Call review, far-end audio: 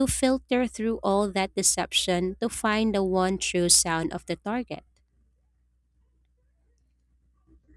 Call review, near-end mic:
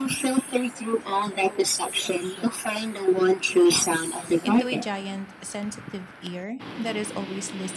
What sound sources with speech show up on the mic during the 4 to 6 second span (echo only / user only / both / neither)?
both